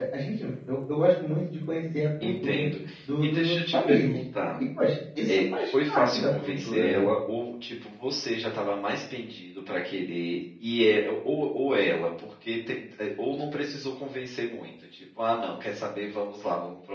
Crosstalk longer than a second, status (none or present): present